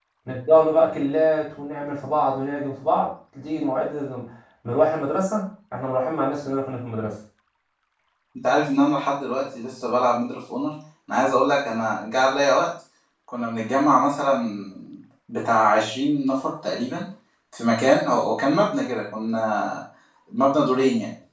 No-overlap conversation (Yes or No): Yes